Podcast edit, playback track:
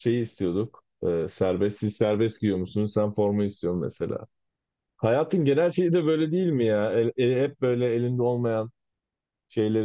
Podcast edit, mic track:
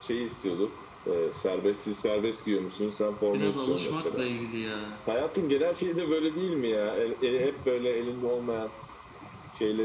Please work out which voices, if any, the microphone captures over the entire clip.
both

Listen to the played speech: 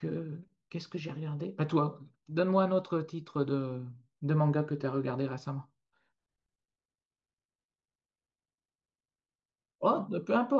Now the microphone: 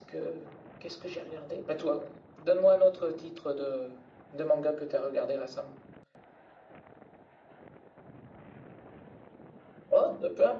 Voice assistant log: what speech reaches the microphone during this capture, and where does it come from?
echo only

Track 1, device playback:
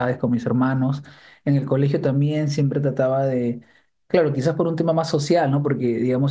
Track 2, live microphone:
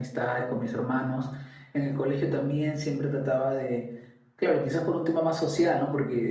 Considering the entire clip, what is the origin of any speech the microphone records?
echo only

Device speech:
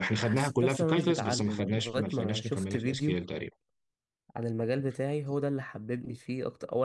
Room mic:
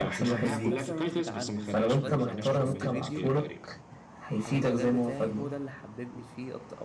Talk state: both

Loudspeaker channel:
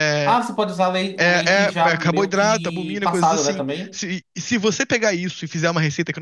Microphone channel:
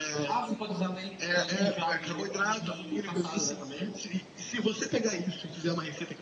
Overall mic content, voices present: echo only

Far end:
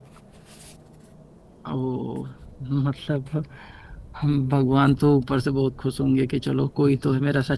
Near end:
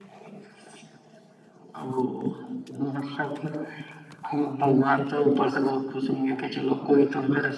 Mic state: echo only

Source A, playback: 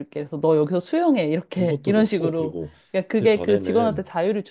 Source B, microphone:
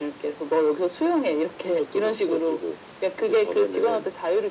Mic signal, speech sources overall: echo only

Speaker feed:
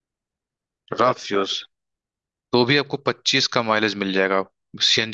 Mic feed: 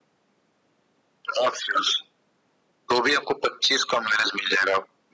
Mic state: echo only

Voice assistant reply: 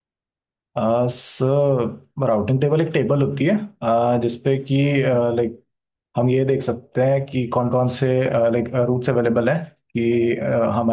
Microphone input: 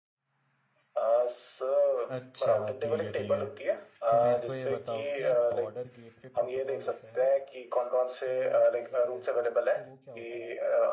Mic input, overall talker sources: both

